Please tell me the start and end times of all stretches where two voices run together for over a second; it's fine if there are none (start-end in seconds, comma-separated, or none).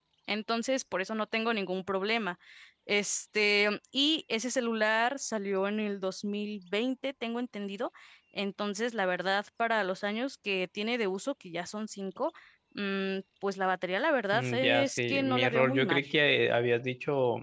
14.3-16.0